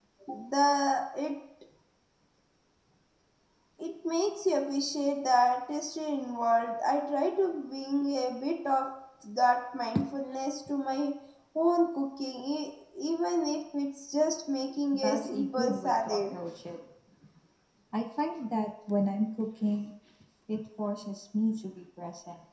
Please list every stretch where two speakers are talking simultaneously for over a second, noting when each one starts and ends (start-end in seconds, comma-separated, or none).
14.9-16.4